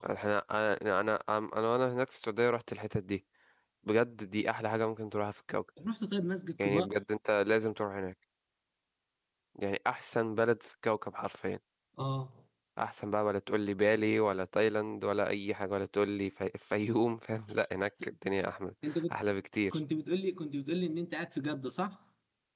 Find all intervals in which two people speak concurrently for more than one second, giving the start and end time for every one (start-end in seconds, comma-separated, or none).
none